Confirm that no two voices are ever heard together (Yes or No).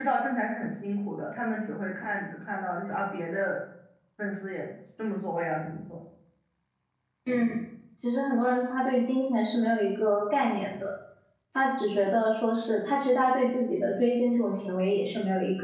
Yes